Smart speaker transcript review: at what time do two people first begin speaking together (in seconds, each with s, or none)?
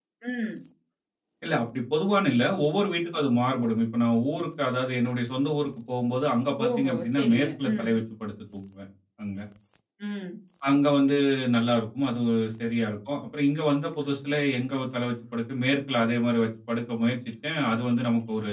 6.6 s